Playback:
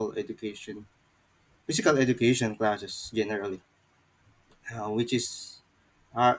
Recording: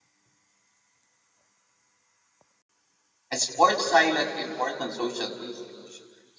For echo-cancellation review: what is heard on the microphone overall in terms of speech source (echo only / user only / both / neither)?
user only